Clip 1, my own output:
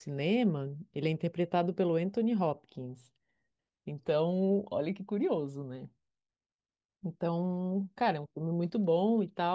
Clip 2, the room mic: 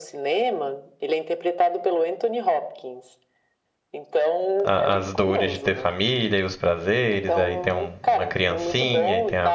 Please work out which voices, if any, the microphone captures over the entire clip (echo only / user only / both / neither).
both